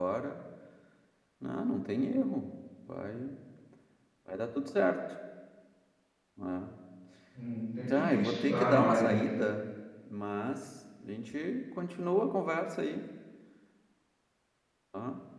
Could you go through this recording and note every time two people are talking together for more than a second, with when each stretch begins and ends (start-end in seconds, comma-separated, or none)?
7.9-9.2